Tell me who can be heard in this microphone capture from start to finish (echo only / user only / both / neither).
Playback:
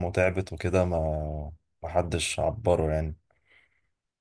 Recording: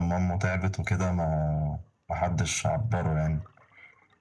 echo only